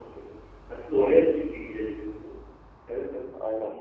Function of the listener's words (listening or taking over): taking over